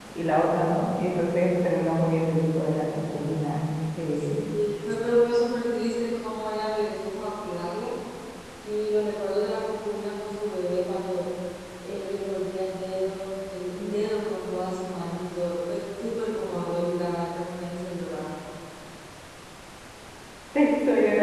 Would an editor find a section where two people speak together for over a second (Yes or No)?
No